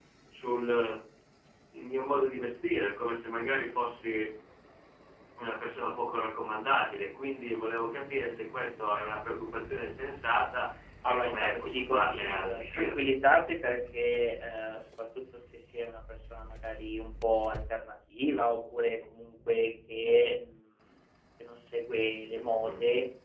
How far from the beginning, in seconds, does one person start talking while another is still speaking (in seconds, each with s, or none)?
11.1 s